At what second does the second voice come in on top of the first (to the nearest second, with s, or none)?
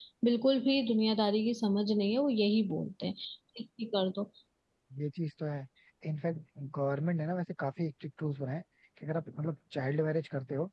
none